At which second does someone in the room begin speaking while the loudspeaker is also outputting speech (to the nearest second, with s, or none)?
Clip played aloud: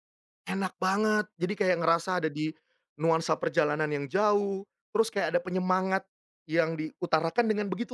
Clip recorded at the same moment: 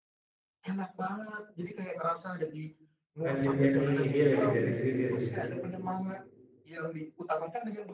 3 s